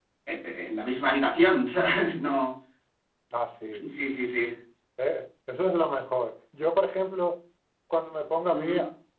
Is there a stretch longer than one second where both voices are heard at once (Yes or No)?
No